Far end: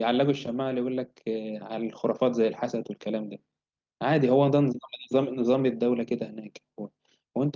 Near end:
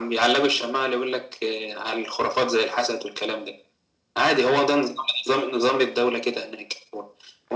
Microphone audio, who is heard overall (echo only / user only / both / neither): echo only